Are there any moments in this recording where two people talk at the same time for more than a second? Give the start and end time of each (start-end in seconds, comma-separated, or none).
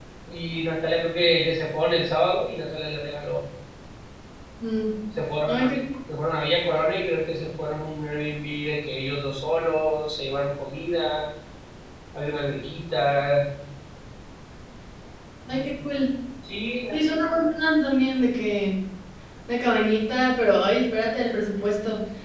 none